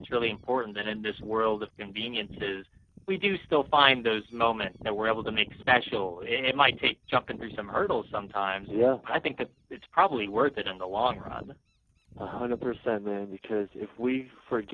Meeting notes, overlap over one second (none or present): none